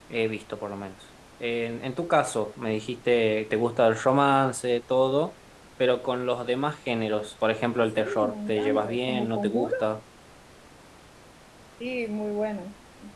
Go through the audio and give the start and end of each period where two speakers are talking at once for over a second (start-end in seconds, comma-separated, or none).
8.0-9.7